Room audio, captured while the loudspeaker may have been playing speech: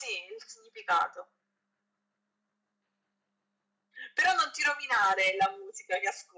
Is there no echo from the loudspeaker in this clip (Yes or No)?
No